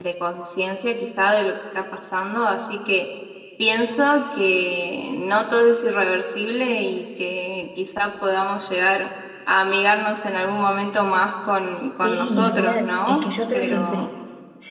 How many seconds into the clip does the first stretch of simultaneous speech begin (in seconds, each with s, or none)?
12.0 s